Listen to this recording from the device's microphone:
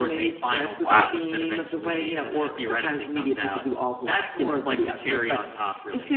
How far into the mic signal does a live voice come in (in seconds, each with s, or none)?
0.8 s